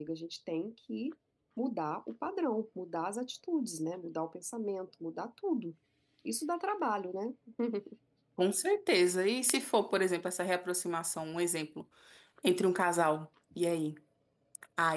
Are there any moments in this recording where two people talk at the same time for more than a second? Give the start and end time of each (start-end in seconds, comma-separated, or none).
none